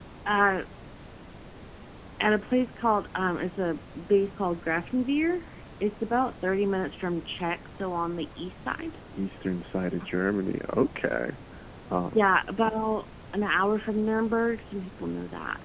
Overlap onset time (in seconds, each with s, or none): none